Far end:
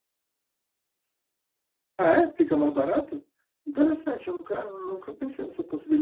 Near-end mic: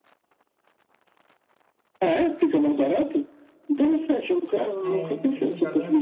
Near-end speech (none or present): present